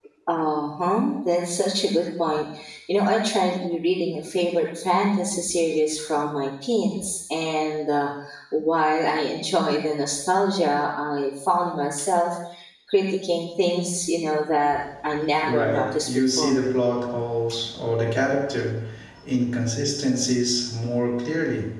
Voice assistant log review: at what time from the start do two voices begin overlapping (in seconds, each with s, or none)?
15.4 s